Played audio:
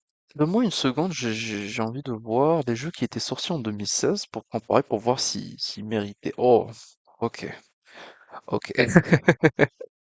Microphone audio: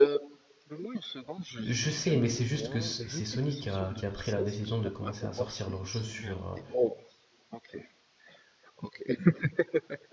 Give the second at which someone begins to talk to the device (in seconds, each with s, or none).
1.6 s